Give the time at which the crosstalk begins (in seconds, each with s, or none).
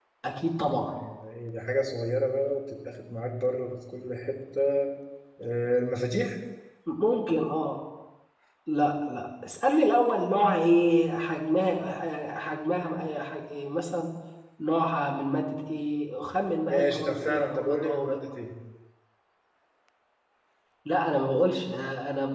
16.7 s